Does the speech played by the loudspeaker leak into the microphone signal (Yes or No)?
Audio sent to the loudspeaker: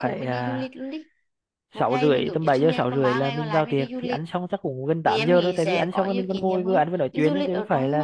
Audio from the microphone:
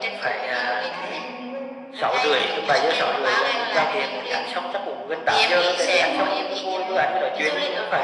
Yes